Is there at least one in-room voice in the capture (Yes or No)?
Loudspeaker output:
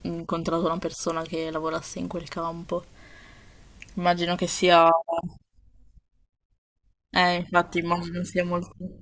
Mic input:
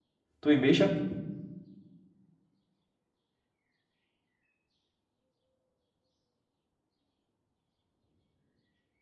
Yes